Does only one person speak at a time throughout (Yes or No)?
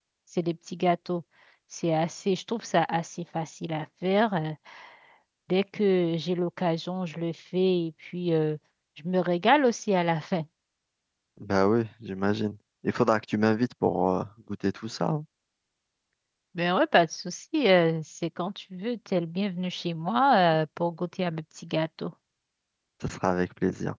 Yes